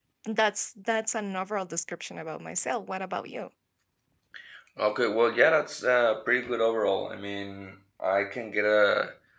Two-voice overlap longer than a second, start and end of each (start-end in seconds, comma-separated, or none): none